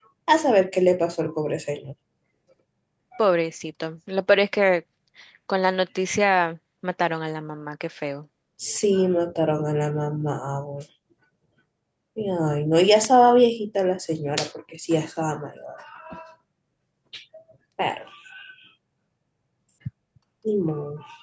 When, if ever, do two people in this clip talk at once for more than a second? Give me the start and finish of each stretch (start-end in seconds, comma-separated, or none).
none